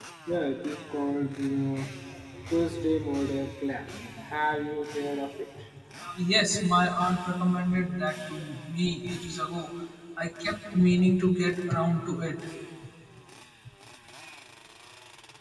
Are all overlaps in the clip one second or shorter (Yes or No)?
Yes